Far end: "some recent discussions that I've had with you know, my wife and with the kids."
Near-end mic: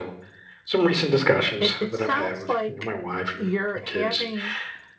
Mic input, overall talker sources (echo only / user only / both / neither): both